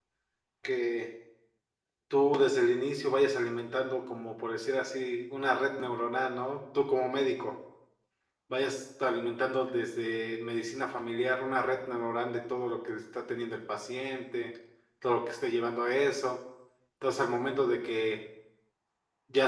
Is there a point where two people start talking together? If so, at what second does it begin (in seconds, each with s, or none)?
none